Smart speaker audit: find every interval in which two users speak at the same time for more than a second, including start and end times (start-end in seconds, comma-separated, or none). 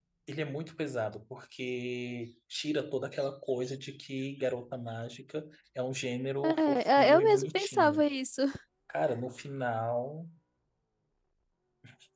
6.4-8.1